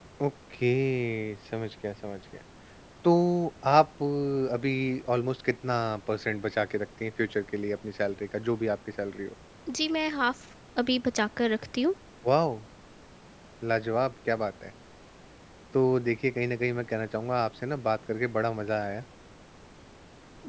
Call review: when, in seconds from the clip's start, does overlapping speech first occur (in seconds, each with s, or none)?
none